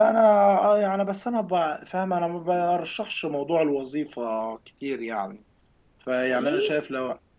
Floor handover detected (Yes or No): No